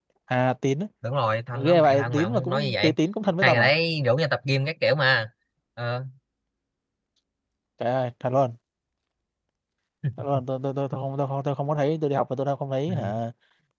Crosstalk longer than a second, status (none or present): present